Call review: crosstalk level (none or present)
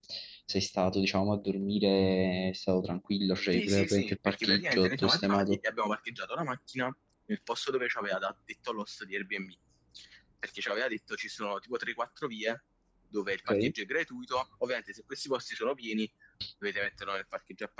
present